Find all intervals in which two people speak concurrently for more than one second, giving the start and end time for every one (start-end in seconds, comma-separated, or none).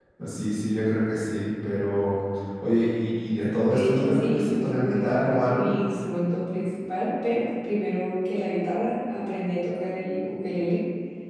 3.6-5.7